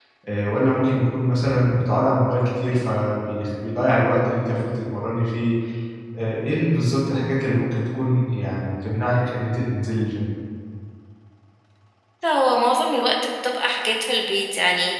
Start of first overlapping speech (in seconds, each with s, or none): none